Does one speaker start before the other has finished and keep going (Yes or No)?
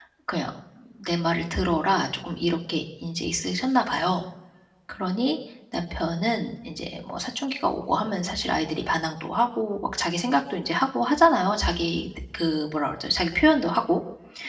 No